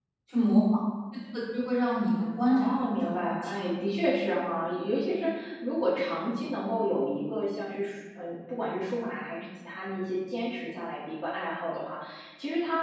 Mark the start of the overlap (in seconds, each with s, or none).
2.5 s